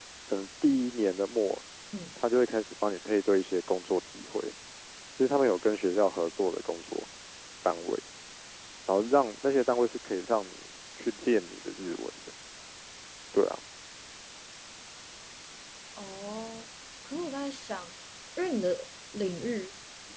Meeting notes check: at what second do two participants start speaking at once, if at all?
none

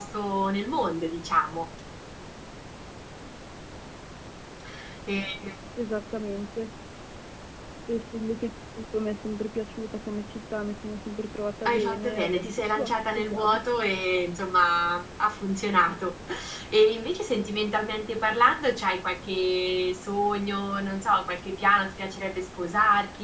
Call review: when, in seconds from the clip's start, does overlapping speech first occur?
11.7 s

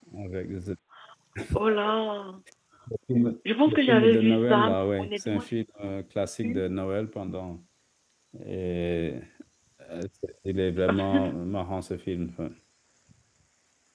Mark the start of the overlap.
3.7 s

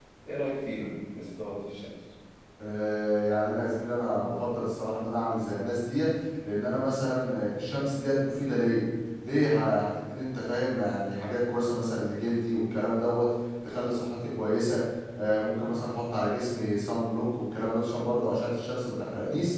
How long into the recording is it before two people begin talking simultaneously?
none

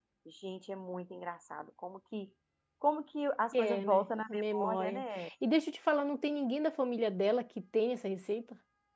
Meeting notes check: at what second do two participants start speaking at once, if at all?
3.5 s

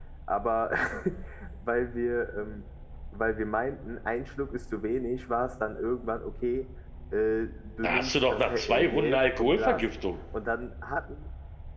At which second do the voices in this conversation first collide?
7.8 s

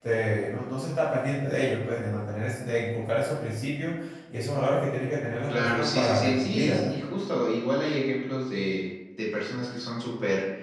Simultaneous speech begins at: 5.5 s

